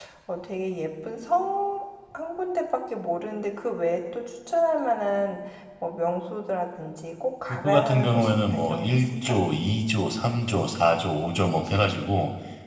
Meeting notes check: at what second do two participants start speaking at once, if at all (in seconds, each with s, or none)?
7.5 s